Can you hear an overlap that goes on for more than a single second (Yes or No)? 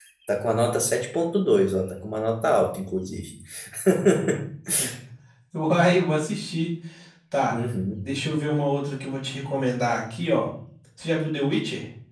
No